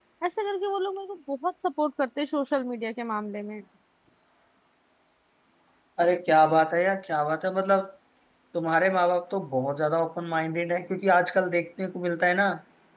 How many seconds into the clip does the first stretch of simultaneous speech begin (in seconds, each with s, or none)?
none